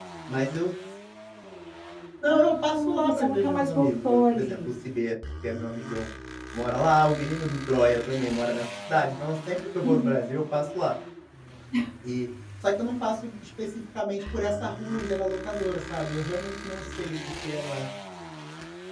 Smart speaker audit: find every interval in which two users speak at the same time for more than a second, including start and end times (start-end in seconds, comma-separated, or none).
2.3-4.7